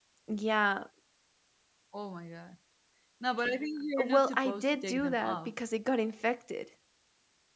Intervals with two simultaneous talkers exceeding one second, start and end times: 4.0-5.5

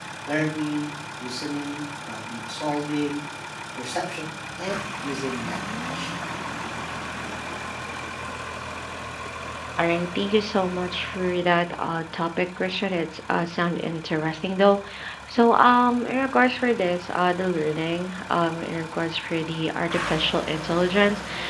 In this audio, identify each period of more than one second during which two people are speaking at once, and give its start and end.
none

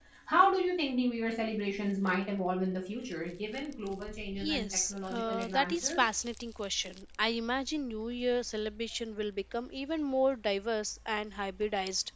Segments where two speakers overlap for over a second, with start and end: 4.5-6.0

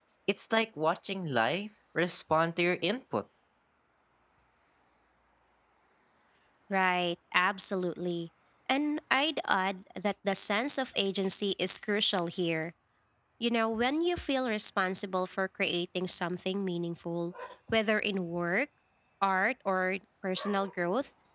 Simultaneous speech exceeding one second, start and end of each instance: none

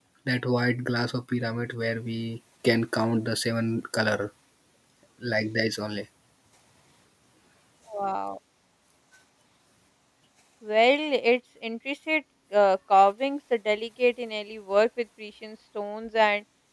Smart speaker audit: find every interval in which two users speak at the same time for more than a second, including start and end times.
none

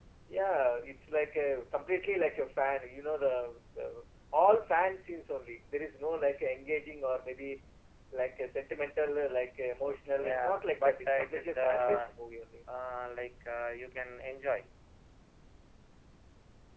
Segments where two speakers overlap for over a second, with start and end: 9.8-12.0

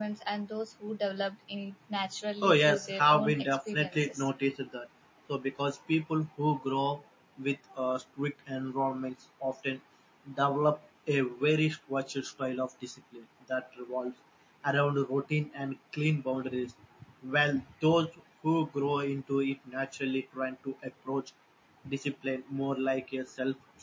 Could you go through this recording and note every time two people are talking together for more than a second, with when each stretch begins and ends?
2.4-4.3

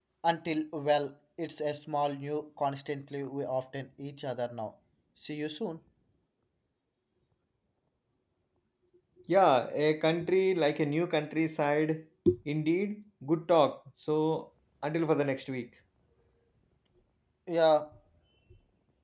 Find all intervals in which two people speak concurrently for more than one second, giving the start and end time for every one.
none

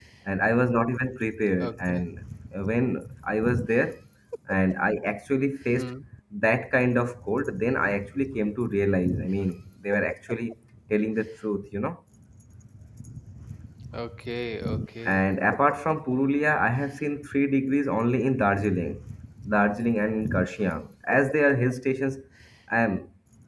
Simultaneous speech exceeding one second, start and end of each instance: none

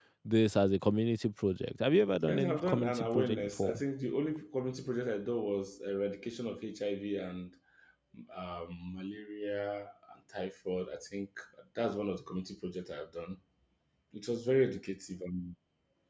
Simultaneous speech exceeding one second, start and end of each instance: 2.3-3.8

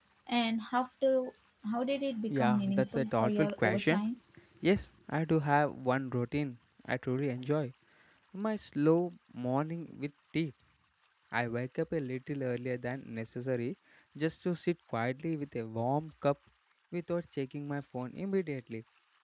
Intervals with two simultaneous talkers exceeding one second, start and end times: 2.3-4.0

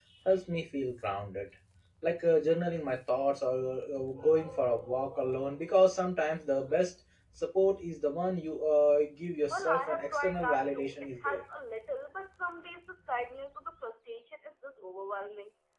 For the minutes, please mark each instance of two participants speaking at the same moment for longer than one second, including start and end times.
9.5-11.4

